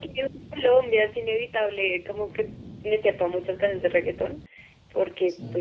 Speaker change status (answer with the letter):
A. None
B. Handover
A